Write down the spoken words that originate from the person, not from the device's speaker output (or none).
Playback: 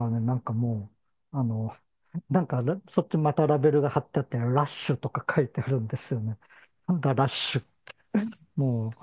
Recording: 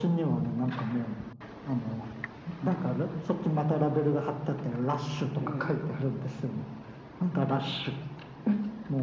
うん。